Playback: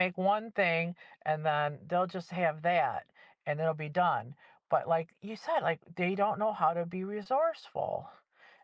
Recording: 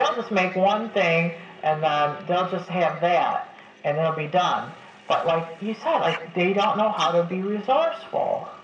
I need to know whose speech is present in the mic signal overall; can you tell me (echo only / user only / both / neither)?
echo only